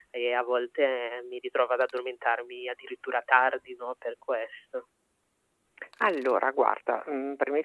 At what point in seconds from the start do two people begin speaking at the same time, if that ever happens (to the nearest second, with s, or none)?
none